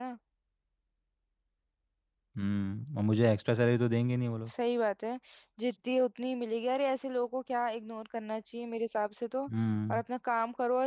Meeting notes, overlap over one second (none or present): none